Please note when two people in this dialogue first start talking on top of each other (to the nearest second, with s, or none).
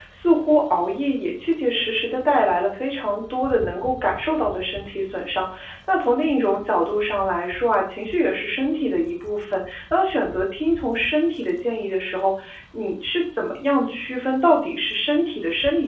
none